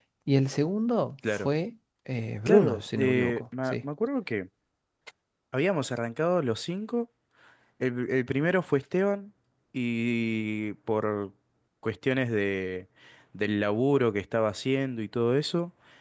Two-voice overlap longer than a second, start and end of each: 2.5-3.8

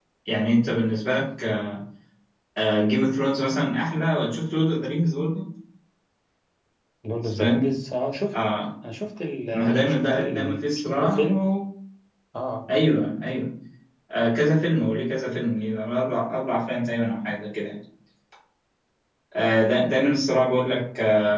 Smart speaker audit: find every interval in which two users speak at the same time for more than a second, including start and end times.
9.5-11.3

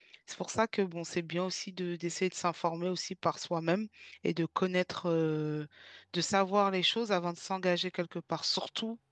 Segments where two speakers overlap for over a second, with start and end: none

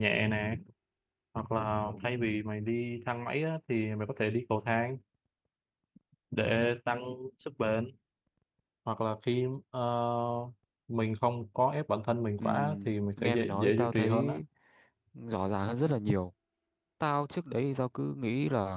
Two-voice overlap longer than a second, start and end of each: 12.4-14.4

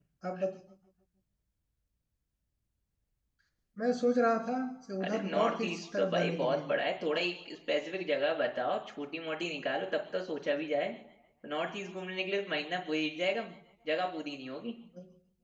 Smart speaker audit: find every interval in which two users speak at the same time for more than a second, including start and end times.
5.0-6.7

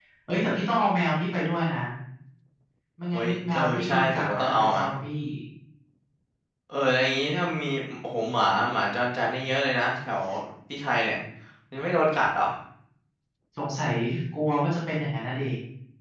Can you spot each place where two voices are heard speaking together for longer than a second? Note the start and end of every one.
3.1-4.8

